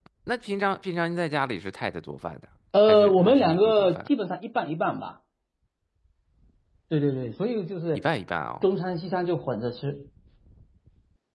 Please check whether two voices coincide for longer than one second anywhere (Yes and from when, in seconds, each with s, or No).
Yes, from 2.9 s